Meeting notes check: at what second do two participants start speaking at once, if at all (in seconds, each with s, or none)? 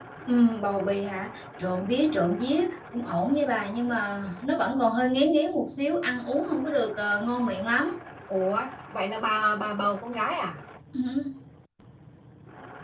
none